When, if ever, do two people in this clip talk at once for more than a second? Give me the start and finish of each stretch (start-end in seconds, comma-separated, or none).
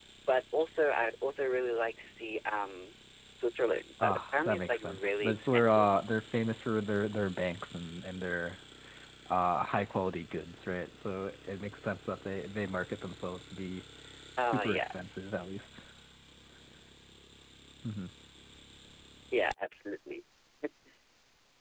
4.0-5.9